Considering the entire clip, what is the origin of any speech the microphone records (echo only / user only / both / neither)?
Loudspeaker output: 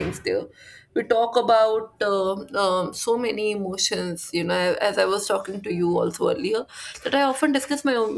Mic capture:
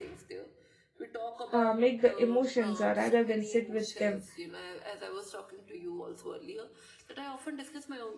both